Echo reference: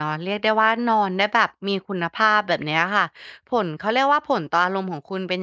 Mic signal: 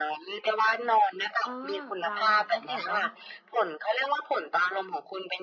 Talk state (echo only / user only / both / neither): both